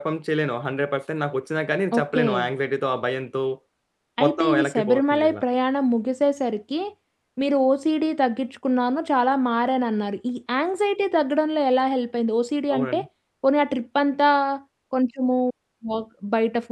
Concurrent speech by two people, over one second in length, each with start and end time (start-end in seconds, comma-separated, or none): 4.2-5.4